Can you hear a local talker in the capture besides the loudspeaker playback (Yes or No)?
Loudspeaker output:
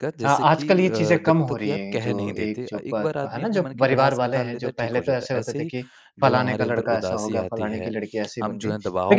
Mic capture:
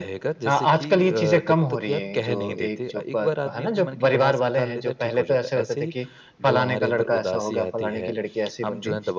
No